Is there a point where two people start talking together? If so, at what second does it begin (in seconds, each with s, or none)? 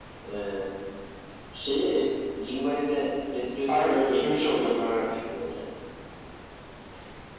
3.7 s